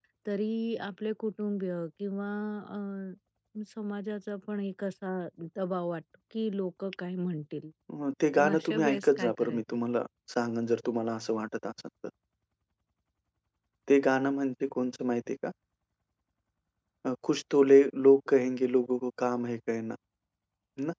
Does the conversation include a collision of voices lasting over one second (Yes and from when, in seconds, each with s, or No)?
Yes, from 8.4 s